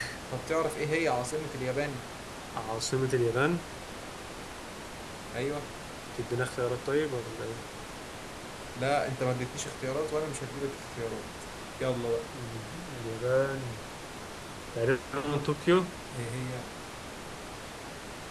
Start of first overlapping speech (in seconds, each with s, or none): none